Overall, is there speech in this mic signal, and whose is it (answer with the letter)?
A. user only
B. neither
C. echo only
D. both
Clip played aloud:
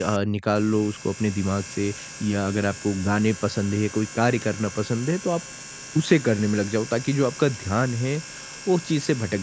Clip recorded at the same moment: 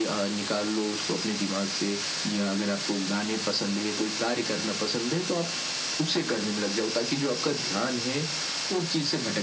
C